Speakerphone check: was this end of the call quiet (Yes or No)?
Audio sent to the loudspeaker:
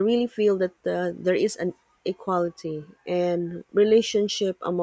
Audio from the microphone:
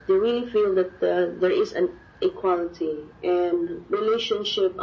Yes